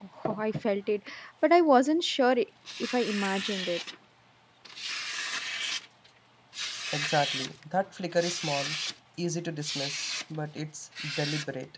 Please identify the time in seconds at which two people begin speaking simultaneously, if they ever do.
none

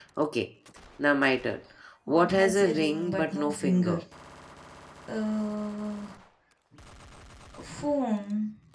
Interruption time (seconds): 2 s

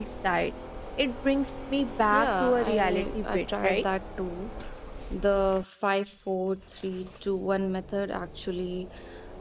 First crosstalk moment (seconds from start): 2 s

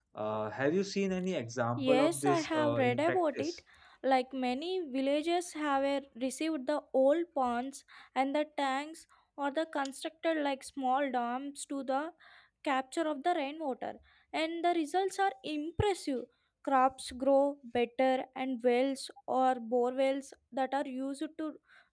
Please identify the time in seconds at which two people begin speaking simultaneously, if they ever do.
2 s

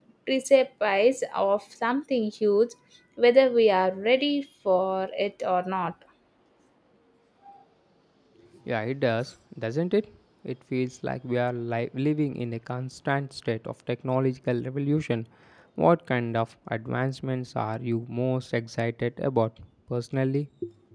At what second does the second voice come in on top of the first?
none

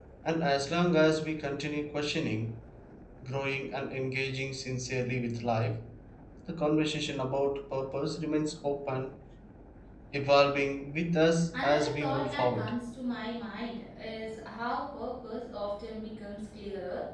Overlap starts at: 12 s

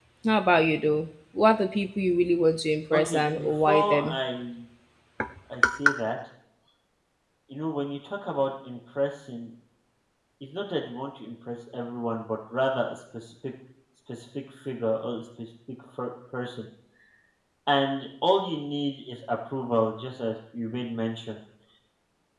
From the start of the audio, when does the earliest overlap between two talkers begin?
3 s

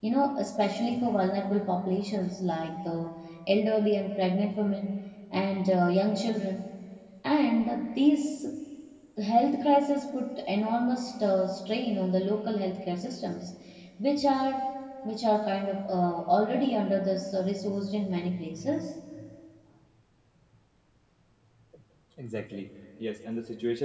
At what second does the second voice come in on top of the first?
none

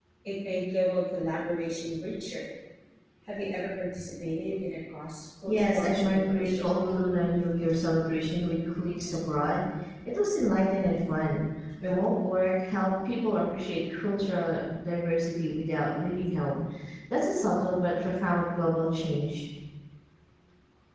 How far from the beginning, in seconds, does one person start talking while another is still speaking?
5 s

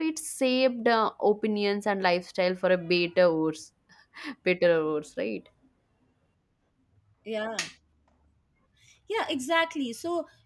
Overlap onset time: none

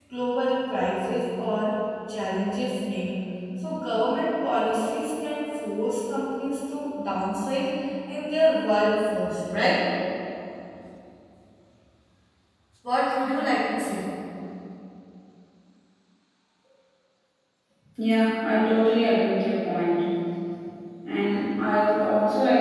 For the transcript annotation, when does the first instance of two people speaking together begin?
none

